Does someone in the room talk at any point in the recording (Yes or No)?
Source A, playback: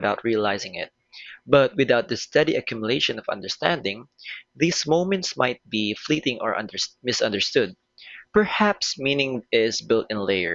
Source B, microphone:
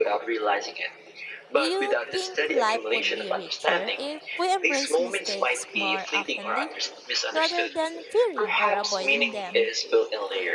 Yes